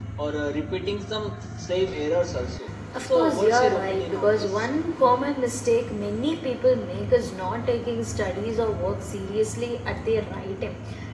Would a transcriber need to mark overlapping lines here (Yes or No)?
Yes